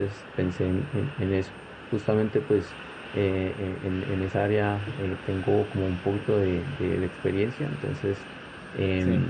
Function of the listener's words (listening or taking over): listening